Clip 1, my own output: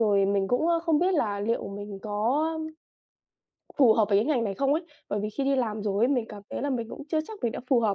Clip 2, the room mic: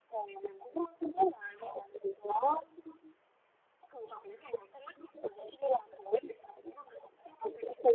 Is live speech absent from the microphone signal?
Yes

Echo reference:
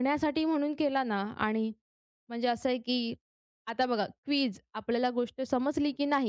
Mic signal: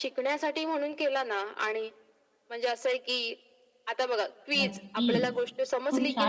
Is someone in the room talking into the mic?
Yes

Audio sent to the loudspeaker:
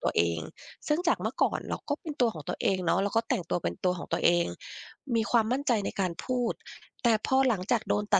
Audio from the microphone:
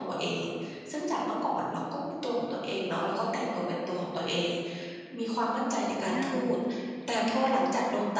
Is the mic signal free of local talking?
No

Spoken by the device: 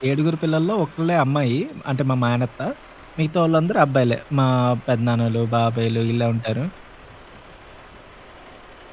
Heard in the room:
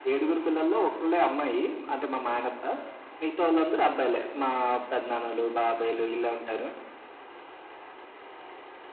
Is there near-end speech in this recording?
No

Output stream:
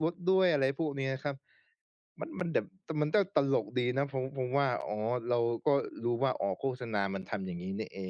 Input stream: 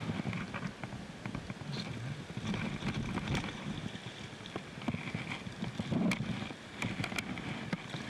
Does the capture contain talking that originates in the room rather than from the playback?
No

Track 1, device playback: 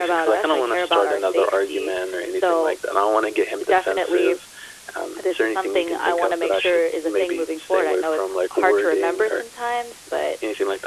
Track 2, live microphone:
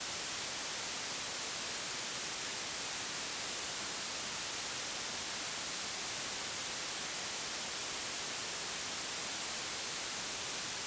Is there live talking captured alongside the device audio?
No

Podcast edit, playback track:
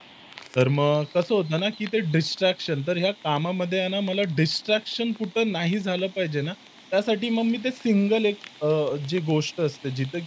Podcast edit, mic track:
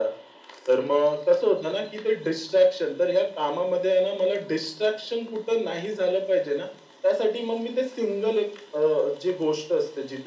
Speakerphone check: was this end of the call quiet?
Yes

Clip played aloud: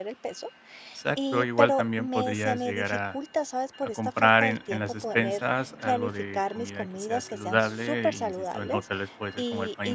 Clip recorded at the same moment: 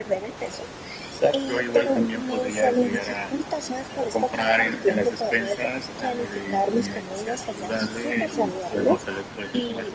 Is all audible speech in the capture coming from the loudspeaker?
Yes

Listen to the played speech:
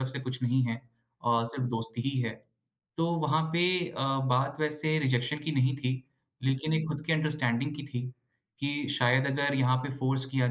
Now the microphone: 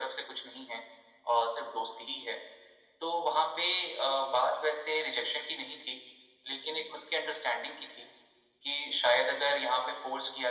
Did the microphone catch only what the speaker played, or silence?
Yes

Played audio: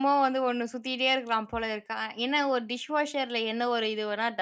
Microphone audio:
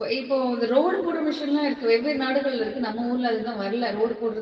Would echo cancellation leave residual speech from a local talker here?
Yes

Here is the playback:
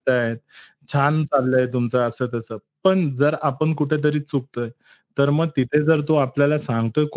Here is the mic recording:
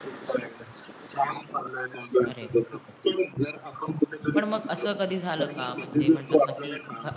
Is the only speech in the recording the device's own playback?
No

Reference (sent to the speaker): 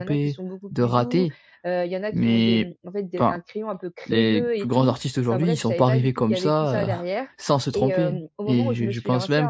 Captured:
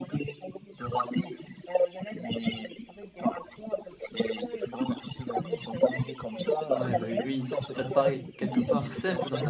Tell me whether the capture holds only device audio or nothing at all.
No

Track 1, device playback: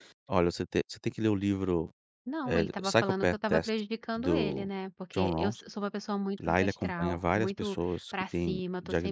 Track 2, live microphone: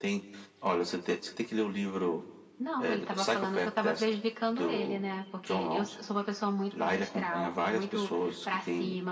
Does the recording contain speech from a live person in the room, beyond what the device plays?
No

